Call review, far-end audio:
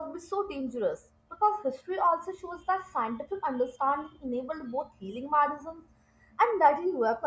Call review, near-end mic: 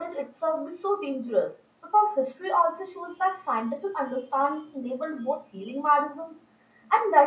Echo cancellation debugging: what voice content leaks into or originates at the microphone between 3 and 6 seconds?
echo only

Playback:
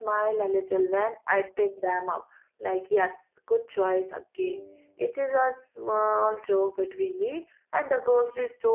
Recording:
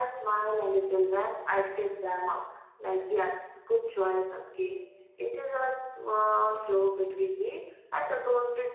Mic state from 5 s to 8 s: echo only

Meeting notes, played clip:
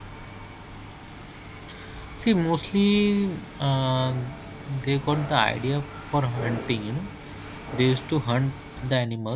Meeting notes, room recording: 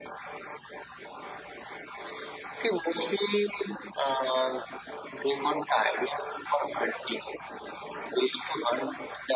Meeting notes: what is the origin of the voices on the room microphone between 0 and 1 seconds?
neither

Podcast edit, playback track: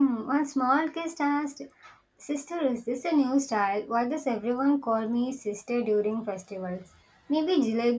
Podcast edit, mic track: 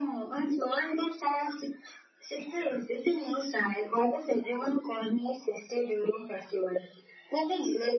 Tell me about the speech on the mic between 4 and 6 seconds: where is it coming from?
echo only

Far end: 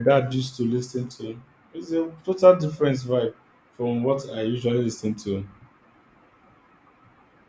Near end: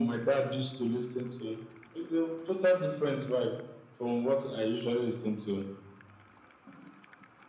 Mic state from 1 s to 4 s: echo only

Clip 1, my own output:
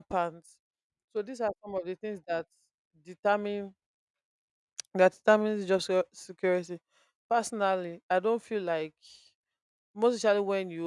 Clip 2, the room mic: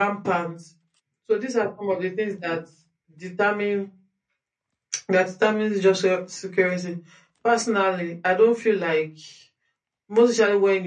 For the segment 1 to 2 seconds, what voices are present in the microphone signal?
echo only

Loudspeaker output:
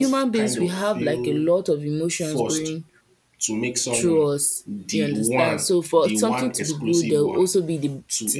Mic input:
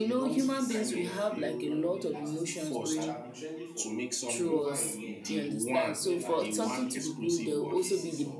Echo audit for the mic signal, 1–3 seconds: both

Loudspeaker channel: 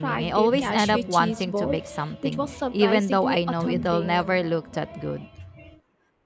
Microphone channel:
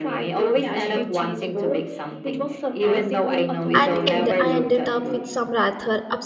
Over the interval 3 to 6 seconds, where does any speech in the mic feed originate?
both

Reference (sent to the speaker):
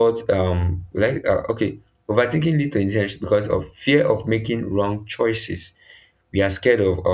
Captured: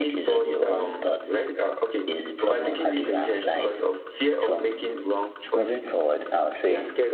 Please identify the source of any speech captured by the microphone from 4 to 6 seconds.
both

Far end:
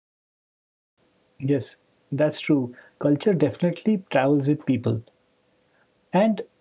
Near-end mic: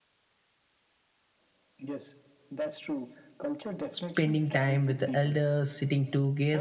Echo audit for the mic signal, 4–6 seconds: both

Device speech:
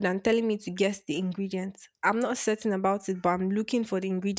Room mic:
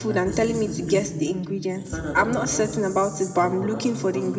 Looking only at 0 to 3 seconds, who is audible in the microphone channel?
both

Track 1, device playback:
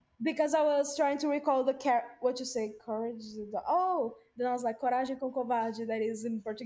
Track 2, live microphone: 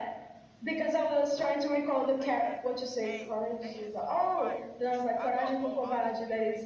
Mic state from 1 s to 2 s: both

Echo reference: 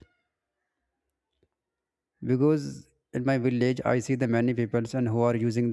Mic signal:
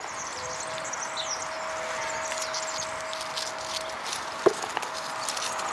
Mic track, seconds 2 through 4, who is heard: neither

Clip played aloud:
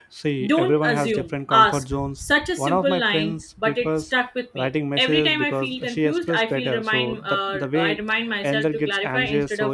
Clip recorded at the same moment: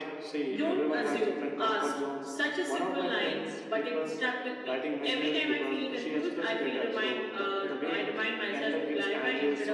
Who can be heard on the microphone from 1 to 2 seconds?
echo only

